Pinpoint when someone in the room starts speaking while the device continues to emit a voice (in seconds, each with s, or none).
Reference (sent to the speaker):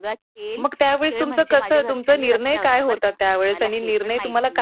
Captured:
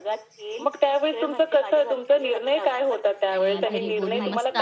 3.3 s